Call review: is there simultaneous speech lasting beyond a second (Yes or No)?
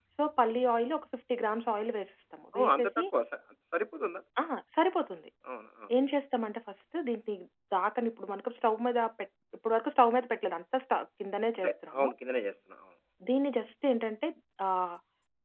No